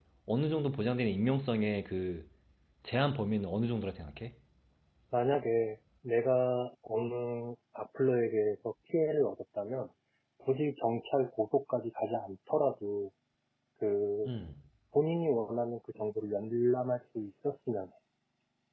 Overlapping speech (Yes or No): No